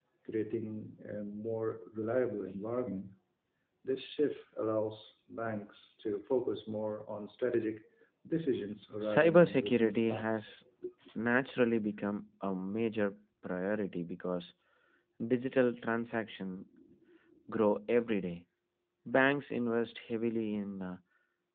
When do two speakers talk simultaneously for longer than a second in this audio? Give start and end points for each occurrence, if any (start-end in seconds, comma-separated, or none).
9.0-10.5